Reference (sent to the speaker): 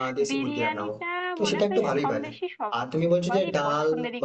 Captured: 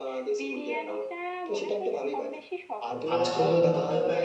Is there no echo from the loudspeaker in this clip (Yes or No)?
No